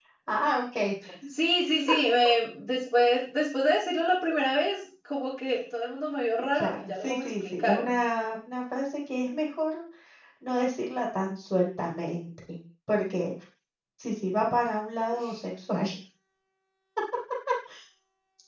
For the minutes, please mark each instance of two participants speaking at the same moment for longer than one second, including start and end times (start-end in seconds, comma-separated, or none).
6.5-7.9